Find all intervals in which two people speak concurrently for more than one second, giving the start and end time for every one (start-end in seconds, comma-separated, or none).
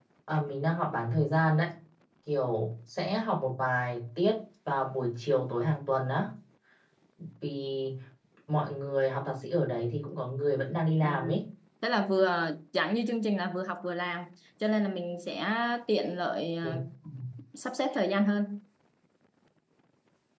none